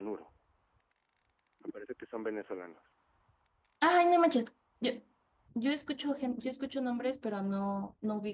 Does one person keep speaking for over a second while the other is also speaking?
No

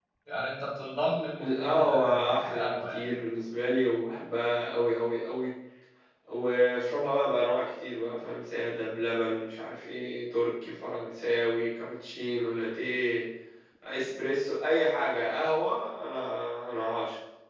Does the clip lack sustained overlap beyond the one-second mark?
No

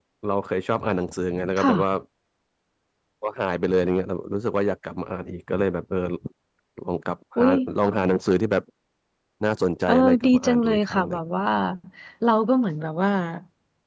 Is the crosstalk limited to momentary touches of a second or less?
No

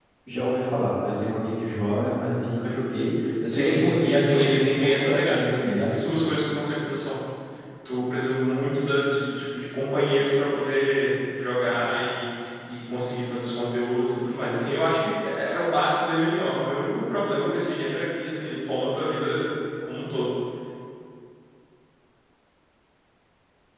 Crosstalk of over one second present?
Yes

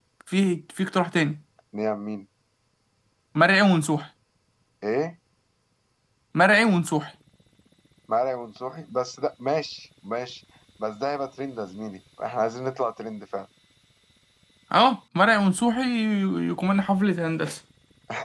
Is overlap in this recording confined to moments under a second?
Yes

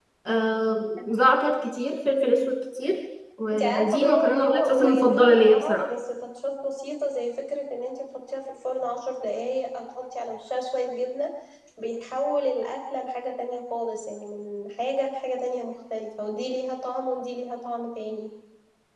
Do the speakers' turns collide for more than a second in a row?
Yes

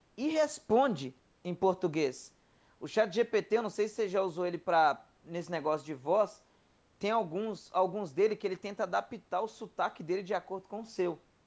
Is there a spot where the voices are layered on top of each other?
No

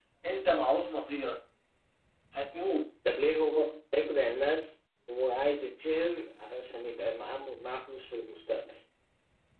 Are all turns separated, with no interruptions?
Yes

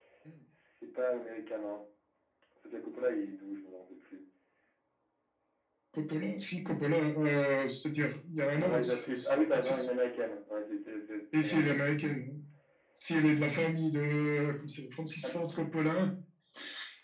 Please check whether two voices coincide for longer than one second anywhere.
Yes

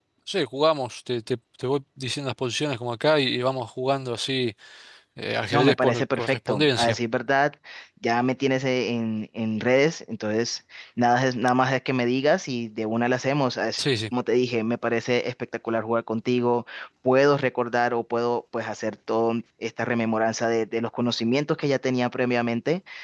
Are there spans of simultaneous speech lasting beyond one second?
Yes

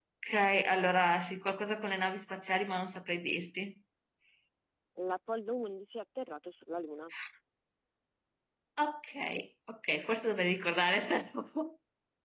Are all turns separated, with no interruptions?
Yes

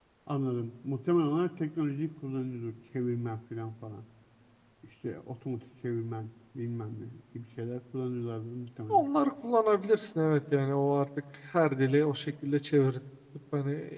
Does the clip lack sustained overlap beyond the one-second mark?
Yes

